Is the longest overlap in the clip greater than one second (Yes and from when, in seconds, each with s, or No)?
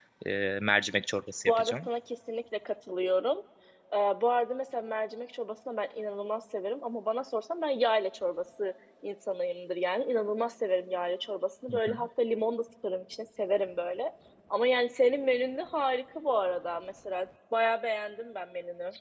No